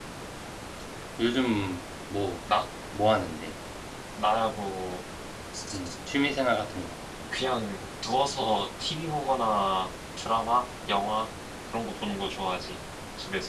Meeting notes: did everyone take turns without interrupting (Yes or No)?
Yes